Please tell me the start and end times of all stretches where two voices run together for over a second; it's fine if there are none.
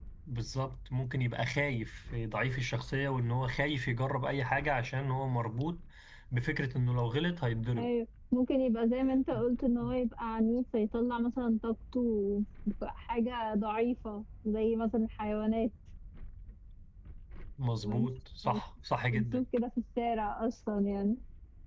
none

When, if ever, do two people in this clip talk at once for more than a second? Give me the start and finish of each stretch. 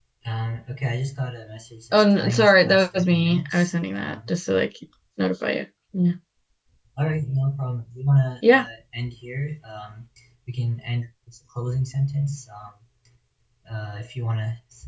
1.9-4.2

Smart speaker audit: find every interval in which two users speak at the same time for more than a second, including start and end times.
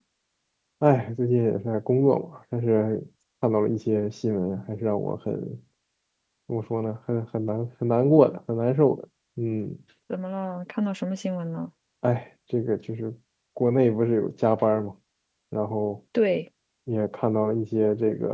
none

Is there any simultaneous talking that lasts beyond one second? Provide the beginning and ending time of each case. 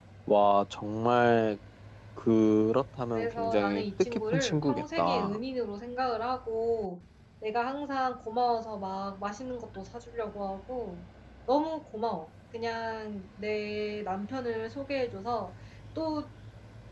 3.1-5.4

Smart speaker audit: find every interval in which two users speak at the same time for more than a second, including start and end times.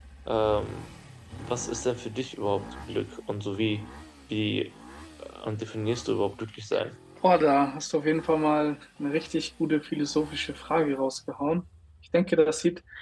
none

